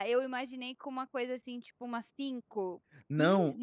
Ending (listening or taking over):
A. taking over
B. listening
A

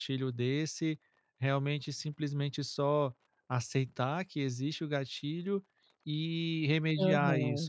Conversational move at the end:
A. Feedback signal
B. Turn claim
A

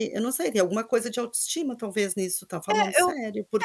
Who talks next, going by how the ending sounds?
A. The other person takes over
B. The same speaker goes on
A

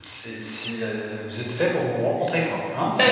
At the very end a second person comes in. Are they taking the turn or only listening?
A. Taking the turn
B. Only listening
A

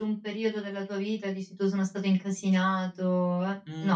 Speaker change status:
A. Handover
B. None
A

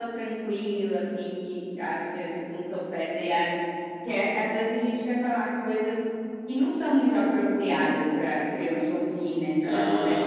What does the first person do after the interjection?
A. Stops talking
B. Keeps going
A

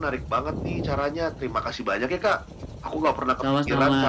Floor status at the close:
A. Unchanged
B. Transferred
A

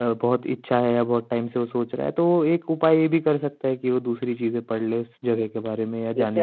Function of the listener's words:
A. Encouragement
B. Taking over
B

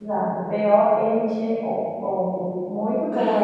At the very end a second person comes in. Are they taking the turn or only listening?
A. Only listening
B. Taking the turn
A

